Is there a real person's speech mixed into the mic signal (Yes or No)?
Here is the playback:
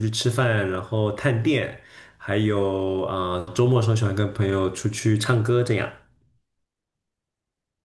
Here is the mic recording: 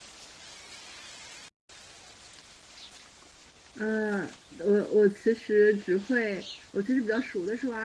Yes